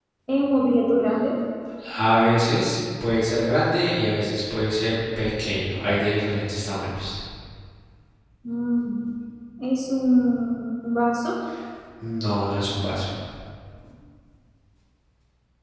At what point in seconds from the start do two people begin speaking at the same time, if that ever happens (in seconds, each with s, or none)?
none